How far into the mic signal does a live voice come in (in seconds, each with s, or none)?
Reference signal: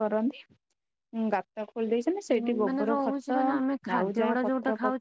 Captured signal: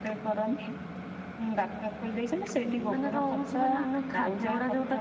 none